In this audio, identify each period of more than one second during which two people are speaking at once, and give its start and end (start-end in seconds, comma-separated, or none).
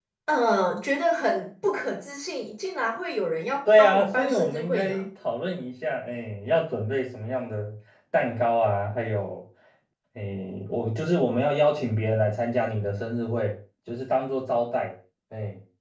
3.8-5.1